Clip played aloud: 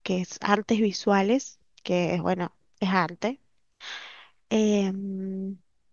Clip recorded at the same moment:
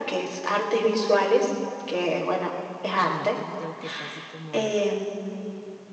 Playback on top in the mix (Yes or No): Yes